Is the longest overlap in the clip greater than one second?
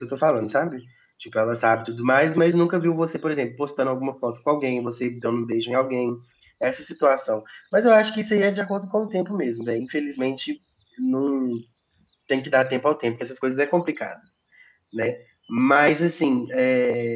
No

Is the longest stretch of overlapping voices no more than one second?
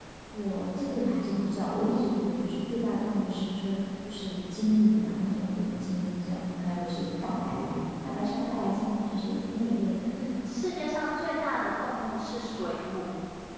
Yes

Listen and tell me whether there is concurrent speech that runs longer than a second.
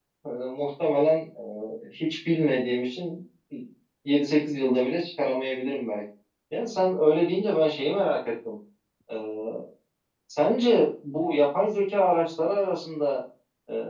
No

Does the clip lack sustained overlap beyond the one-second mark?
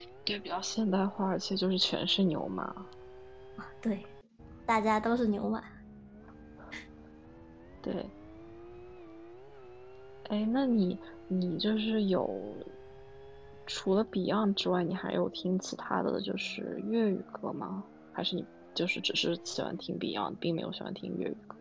Yes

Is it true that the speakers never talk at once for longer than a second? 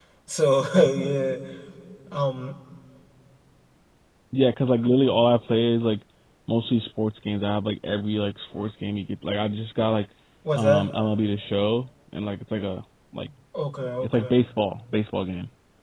Yes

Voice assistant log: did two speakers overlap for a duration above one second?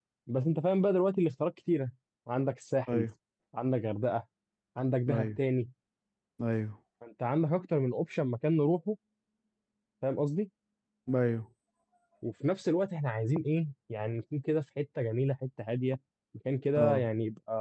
No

